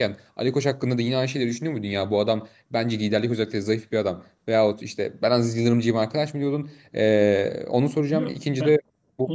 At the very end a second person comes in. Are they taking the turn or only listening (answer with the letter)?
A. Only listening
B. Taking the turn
B